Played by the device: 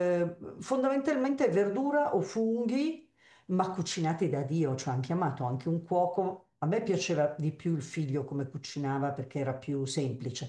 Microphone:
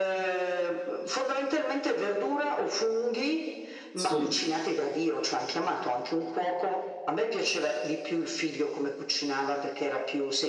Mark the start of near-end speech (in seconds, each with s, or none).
3.9 s